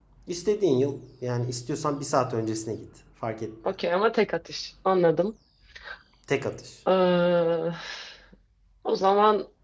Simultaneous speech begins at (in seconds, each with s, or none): none